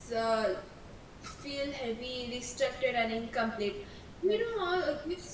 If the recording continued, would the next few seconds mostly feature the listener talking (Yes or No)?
No